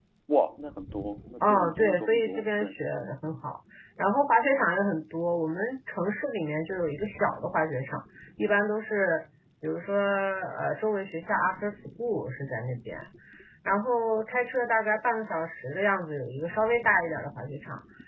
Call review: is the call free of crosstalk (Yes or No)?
No